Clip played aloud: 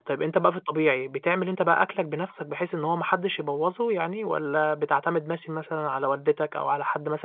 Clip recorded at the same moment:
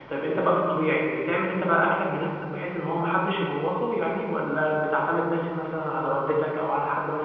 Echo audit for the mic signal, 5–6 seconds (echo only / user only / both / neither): echo only